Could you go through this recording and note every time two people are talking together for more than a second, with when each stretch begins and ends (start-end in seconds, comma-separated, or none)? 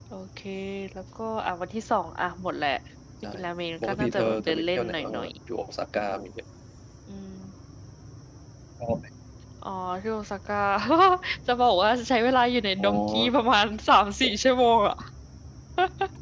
3.8-5.3